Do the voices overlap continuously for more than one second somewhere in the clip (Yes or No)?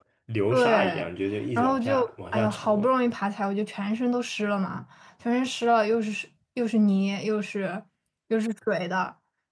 Yes